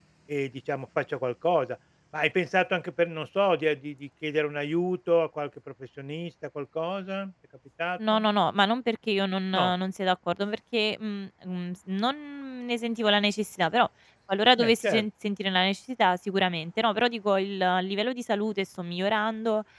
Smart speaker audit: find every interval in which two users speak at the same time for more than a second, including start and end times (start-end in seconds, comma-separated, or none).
none